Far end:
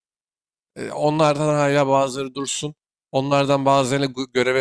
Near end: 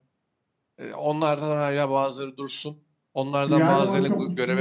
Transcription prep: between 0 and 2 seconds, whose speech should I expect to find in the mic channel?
echo only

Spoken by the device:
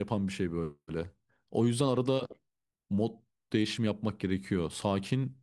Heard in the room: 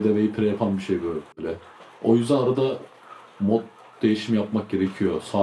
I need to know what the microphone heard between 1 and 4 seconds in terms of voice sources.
echo only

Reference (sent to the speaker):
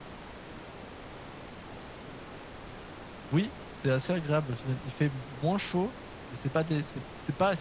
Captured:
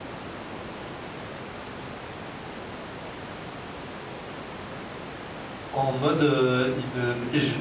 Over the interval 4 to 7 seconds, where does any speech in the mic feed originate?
user only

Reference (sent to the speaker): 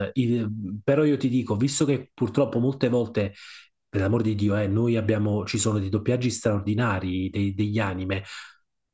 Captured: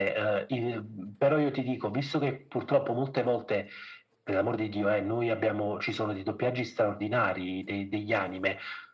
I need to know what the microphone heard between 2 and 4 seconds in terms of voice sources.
echo only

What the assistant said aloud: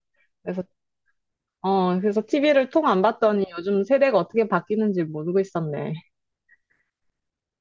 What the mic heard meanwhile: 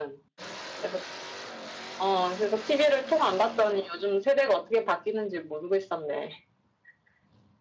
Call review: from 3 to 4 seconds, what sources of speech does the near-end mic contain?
echo only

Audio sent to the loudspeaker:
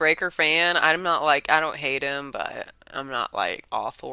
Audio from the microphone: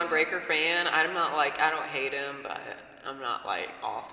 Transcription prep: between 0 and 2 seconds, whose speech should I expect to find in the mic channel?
echo only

